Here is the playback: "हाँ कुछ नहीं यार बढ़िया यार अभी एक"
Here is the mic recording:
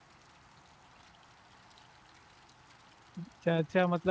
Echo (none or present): none